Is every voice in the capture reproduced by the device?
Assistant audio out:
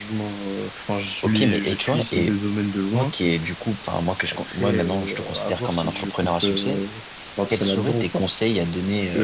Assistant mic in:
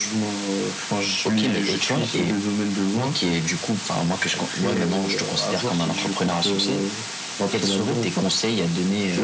Yes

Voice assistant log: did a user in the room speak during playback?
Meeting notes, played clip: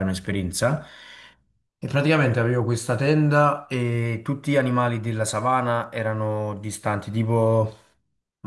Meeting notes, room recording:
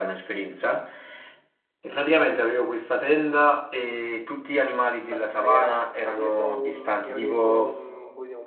Yes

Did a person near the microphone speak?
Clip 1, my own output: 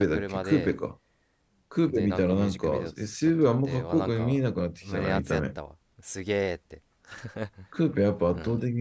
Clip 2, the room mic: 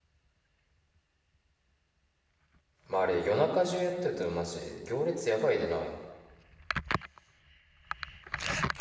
Yes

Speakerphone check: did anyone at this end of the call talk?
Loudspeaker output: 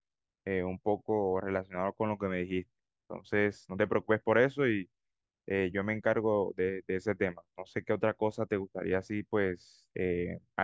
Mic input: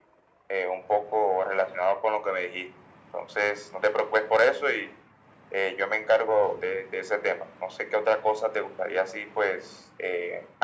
No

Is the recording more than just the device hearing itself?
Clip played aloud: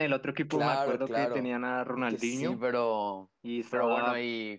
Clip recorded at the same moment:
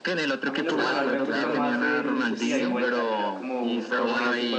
Yes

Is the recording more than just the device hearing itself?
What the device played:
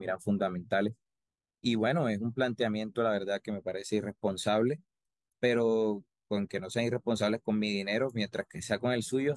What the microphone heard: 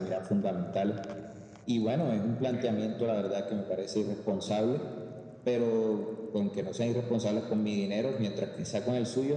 Yes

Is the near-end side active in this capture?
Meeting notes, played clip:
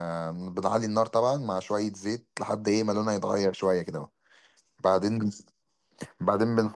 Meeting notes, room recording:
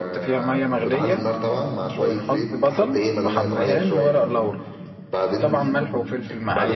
Yes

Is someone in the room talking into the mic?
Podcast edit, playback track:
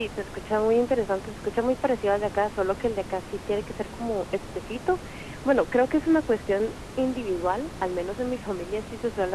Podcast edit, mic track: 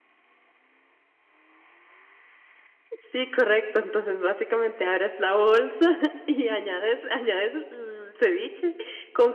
Yes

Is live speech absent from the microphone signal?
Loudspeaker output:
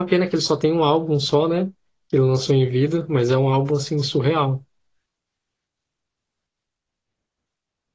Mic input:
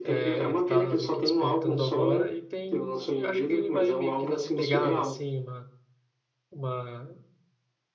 No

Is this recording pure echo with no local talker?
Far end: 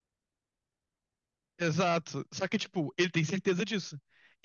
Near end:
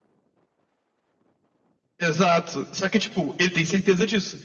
Yes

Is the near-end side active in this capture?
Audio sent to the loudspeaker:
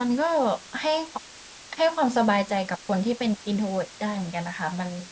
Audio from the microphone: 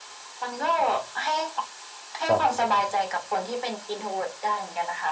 Yes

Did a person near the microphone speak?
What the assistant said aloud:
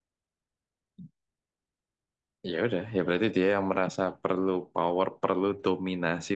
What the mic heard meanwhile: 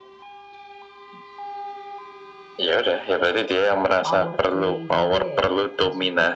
Yes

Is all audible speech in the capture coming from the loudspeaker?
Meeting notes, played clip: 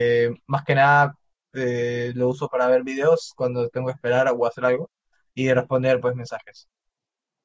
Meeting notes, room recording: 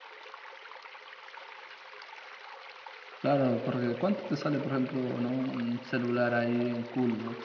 No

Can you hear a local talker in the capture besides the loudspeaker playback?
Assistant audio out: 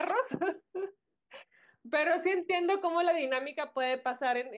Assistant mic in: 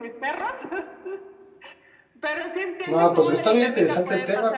Yes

